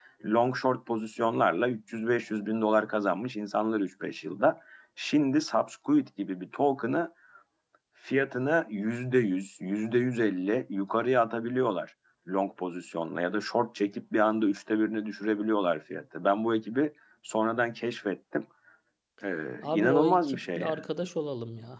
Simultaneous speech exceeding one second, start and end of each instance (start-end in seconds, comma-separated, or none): 19.6-20.9